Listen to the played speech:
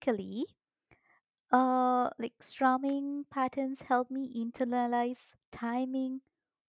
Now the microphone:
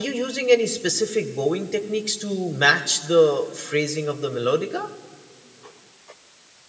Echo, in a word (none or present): none